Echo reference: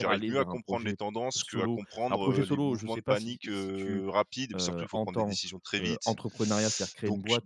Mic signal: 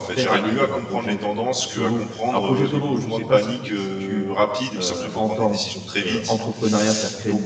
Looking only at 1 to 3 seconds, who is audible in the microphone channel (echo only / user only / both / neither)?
echo only